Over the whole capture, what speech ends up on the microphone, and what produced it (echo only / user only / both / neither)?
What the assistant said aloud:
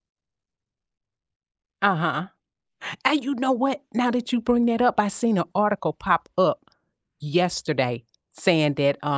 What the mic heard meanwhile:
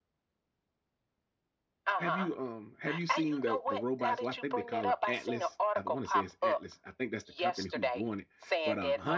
both